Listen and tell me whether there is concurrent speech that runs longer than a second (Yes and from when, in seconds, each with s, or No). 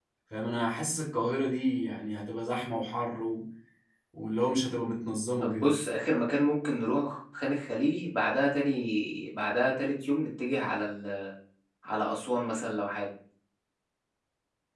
No